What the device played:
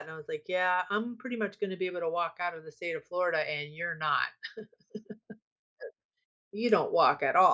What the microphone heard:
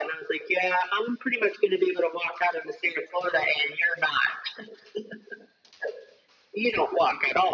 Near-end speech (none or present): none